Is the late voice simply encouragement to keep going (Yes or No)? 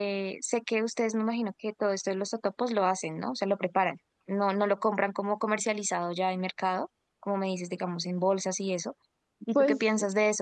Yes